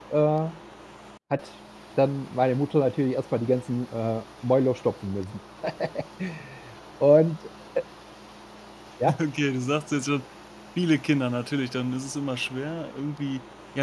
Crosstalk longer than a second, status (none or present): none